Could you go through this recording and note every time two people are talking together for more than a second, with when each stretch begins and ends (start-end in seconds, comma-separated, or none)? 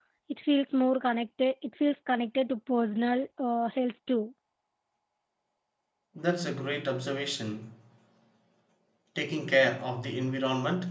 none